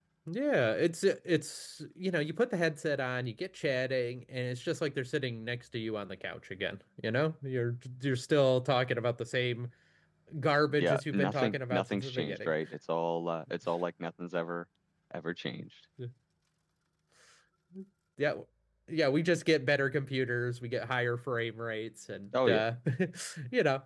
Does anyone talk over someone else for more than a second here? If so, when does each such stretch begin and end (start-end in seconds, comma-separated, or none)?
10.8-12.5